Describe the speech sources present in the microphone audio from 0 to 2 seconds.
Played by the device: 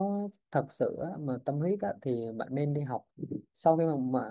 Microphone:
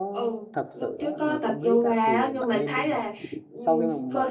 both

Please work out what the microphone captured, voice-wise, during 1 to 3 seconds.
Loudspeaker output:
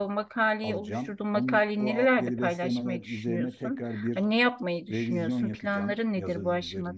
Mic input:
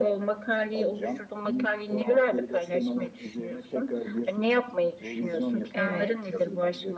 echo only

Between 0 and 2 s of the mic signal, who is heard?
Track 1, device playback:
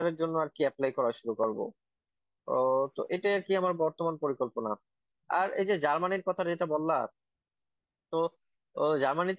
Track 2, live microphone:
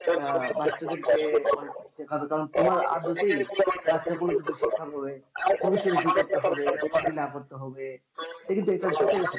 both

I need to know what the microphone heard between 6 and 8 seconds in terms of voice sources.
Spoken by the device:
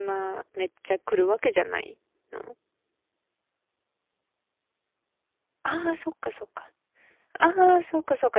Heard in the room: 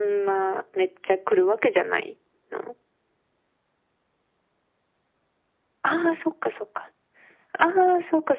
echo only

